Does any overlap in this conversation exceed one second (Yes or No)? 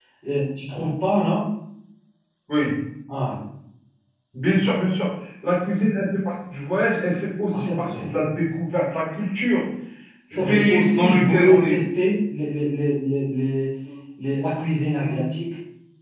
Yes